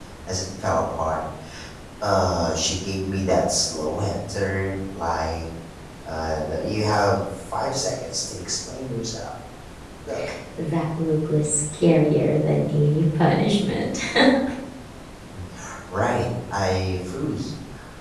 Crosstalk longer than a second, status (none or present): none